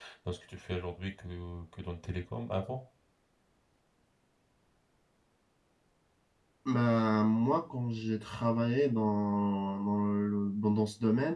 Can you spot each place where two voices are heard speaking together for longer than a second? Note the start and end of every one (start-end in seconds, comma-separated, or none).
none